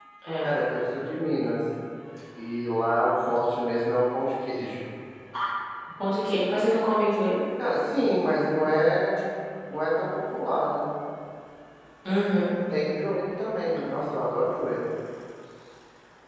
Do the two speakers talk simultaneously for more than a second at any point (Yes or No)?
No